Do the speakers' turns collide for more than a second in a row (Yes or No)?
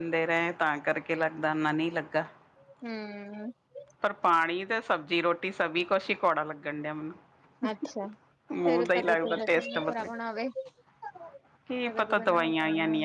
Yes